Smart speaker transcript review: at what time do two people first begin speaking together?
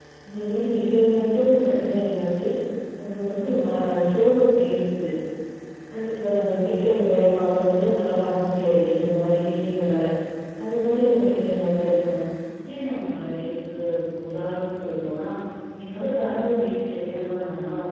none

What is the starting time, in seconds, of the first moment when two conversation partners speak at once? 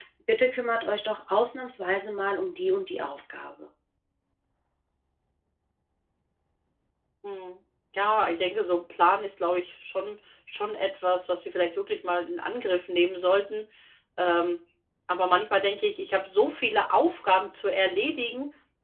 none

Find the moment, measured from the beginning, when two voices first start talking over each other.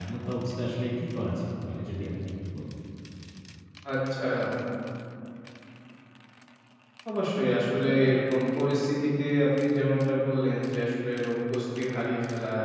none

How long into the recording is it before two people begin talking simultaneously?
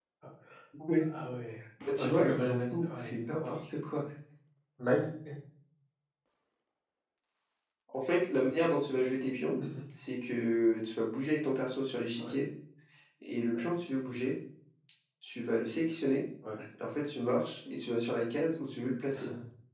1.9 s

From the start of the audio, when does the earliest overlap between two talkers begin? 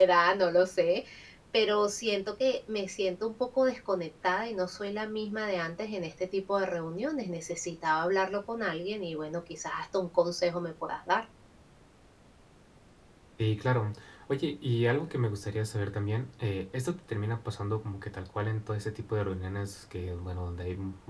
none

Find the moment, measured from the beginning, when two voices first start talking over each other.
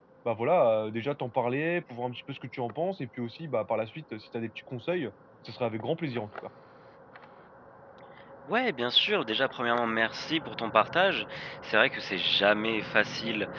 none

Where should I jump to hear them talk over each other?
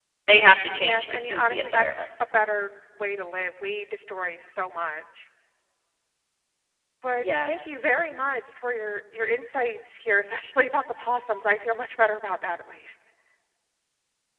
0.8 s

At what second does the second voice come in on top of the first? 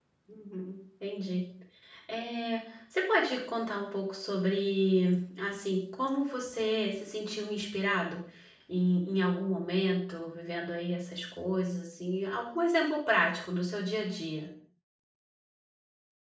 none

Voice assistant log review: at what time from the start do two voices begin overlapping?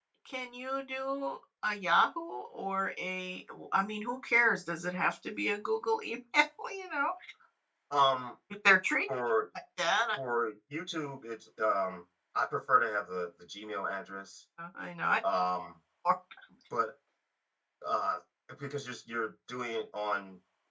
none

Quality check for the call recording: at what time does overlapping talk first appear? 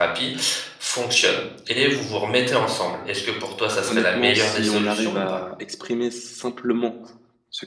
3.9 s

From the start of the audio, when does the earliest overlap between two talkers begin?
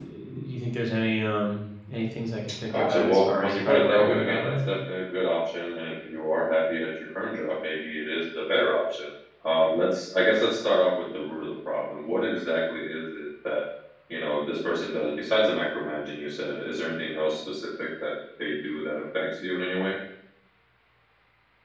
2.5 s

